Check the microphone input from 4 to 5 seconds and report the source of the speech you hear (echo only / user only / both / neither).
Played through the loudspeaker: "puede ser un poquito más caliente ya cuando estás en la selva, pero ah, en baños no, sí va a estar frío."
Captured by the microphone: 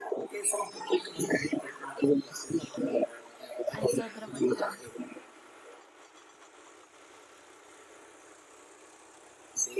both